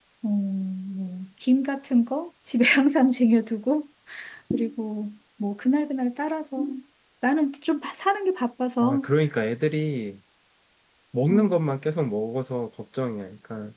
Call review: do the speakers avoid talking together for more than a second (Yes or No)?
Yes